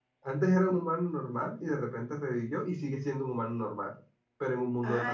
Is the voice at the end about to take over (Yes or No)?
Yes